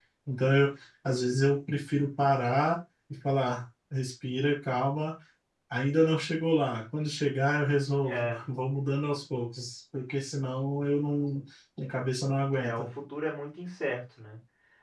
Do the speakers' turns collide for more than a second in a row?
No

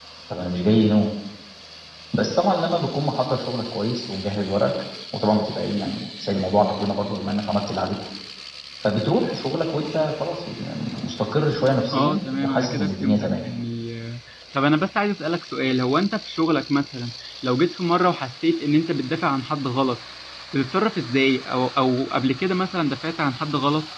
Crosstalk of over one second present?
Yes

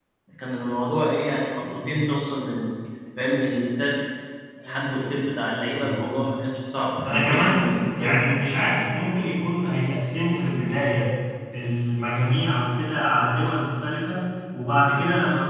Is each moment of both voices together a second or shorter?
No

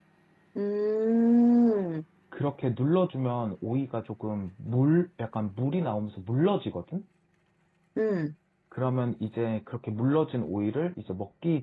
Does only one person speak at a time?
Yes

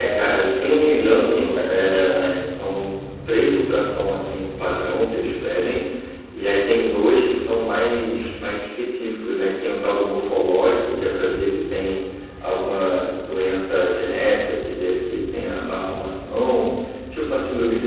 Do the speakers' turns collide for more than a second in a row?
Yes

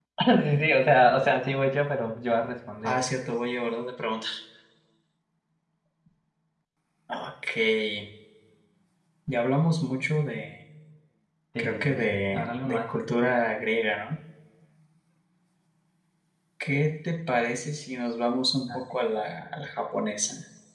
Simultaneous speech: Yes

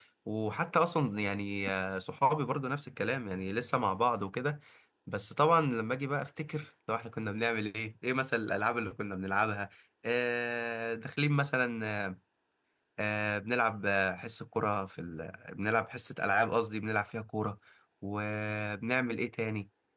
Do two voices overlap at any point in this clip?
No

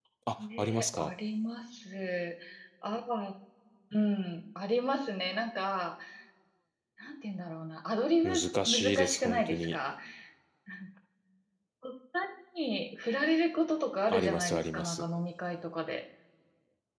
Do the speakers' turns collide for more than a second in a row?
Yes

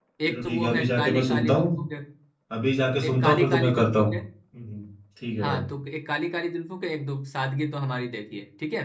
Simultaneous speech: Yes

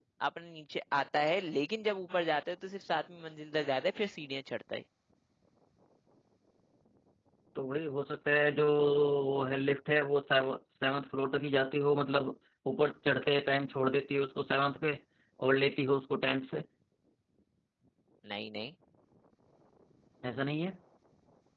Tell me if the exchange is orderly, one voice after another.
Yes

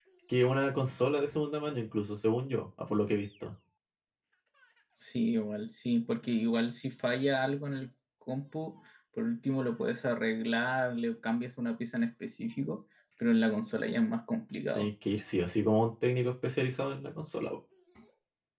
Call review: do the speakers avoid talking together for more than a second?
Yes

